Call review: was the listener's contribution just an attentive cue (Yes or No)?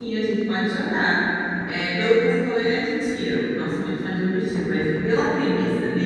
Yes